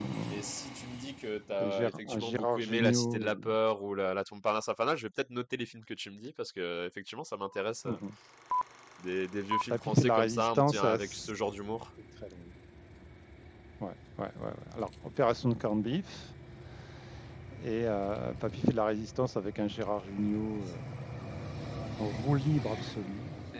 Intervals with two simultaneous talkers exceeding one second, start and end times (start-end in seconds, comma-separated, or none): 1.6-3.4, 9.7-11.3